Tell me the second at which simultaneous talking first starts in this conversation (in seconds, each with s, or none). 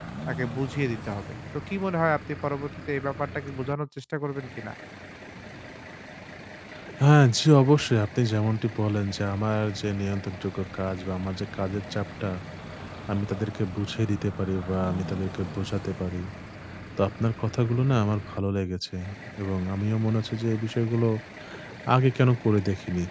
none